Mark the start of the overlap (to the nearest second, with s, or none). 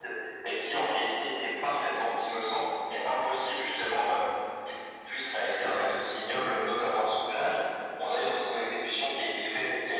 none